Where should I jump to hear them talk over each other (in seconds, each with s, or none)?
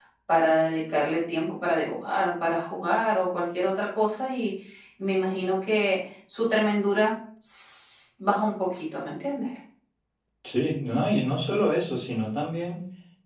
none